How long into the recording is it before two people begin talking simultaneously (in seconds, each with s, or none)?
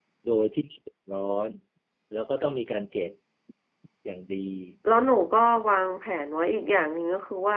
none